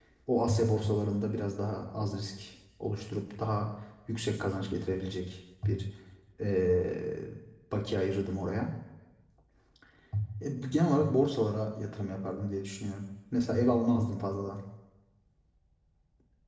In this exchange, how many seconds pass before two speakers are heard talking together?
none

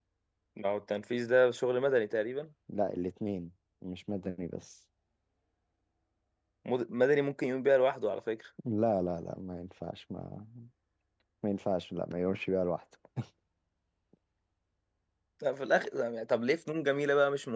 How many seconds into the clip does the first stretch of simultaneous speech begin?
none

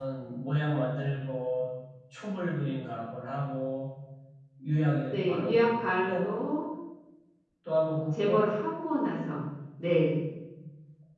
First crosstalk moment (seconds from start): 5 s

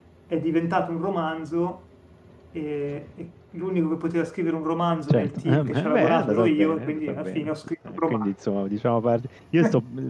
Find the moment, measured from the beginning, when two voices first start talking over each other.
5 s

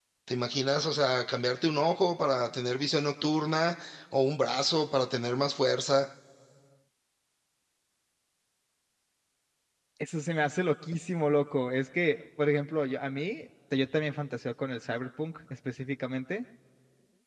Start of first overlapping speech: none

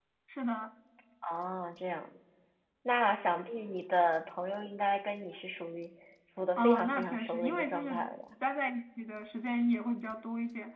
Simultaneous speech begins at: 7 s

